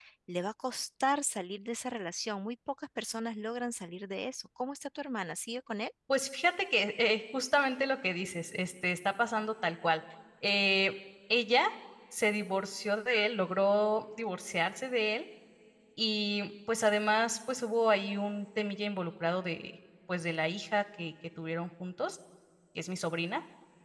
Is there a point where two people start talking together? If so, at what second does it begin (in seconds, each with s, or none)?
none